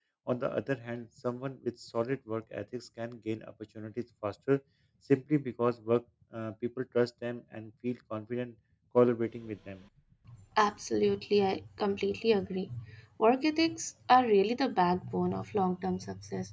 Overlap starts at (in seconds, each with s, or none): none